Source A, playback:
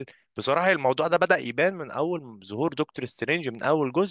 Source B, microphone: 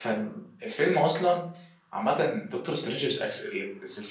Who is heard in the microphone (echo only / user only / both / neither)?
user only